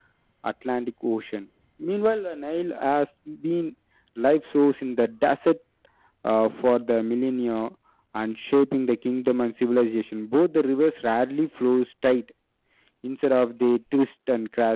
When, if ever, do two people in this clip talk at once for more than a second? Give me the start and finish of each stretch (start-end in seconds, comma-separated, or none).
none